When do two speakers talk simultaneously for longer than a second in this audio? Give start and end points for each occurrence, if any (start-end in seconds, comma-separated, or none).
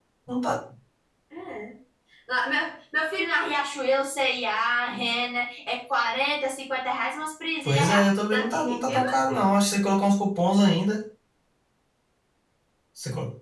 7.7-9.4